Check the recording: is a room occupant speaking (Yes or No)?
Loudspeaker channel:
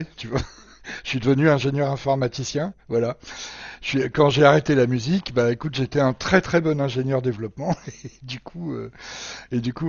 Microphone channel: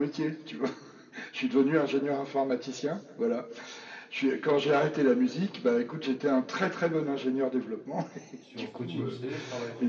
Yes